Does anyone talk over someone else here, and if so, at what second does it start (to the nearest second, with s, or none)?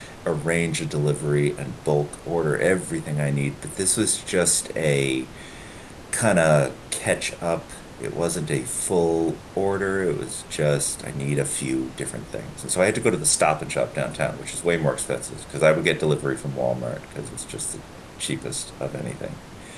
none